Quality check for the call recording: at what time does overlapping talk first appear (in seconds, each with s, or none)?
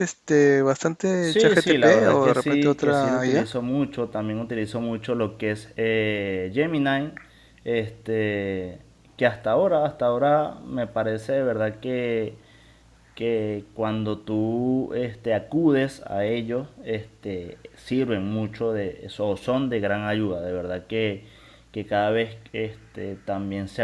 1.2 s